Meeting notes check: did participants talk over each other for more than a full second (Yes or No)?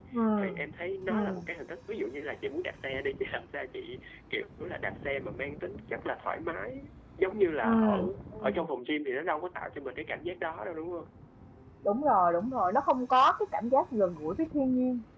No